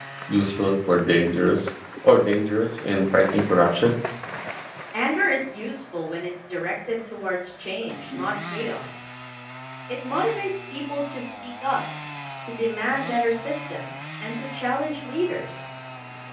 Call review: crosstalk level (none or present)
none